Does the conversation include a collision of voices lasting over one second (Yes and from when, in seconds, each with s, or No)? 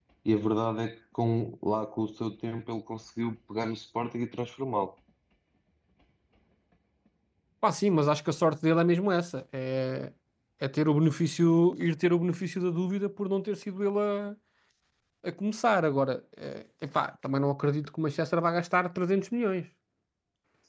No